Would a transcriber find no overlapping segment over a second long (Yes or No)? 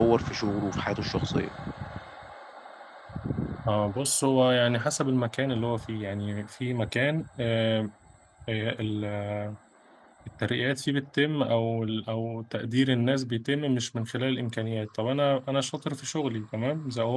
Yes